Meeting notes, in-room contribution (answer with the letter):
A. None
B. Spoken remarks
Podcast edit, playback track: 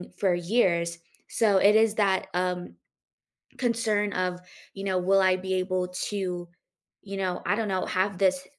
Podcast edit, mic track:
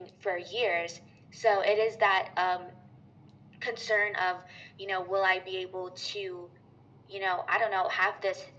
A